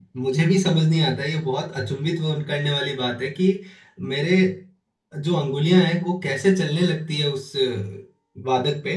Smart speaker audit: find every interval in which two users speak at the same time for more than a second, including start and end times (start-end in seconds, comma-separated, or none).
none